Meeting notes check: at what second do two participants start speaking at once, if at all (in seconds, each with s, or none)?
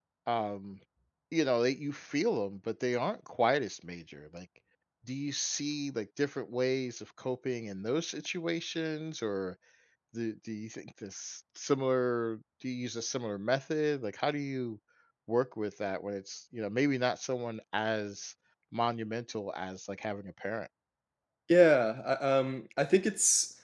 none